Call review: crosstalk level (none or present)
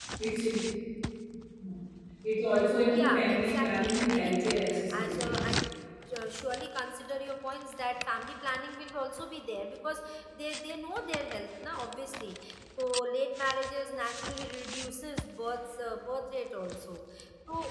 present